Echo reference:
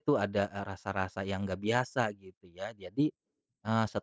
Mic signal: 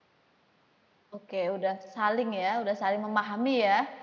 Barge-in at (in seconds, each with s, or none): 1.1 s